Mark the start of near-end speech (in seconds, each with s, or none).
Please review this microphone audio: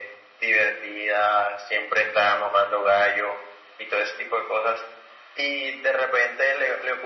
none